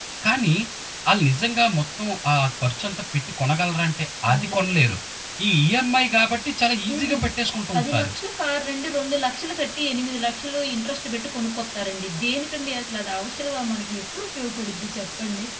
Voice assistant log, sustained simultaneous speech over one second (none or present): none